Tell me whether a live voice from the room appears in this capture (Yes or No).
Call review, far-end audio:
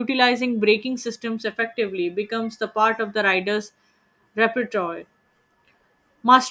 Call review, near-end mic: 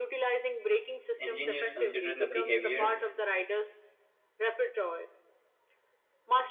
Yes